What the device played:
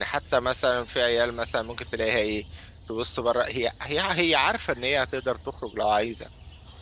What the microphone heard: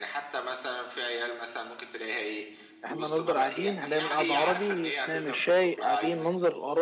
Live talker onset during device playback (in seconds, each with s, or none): 2.8 s